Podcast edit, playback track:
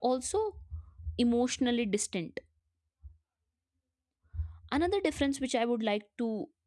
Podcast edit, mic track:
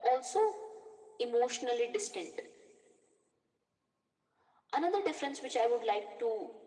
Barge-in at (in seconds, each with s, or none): none